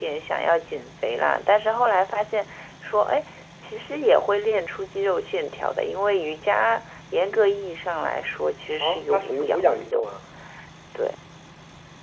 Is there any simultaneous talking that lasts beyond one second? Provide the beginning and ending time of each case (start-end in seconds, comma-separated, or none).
8.8-10.1